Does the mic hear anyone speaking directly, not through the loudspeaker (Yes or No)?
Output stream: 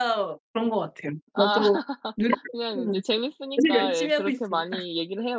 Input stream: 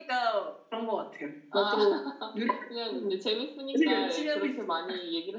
No